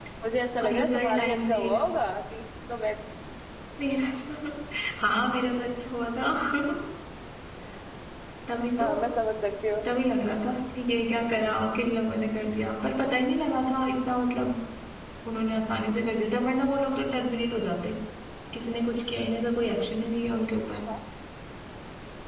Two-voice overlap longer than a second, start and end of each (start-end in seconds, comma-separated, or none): 0.6-1.8